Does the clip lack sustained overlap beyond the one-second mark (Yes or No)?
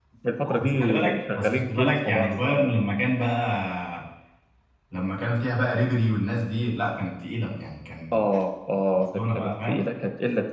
No